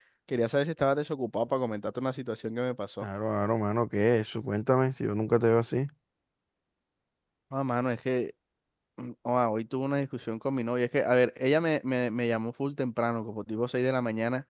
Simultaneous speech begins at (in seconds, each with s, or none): none